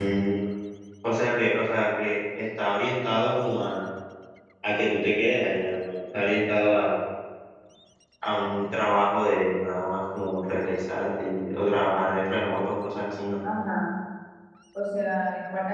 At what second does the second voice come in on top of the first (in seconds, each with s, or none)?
none